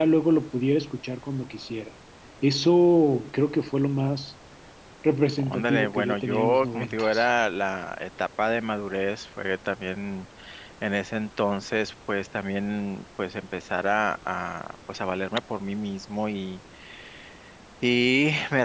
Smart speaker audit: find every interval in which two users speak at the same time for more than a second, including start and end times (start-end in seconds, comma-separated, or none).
5.4-7.3